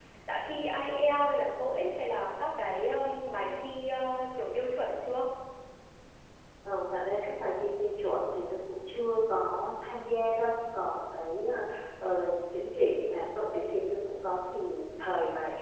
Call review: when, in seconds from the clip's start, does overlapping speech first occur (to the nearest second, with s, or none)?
none